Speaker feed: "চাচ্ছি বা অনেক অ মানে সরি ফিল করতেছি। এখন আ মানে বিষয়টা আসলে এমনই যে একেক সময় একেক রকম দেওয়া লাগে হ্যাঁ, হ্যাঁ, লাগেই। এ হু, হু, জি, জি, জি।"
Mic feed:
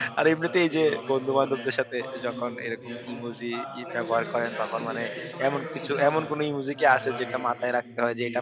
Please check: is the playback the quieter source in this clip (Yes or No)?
Yes